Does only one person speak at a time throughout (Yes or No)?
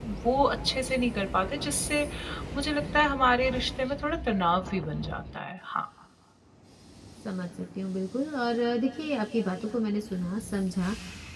Yes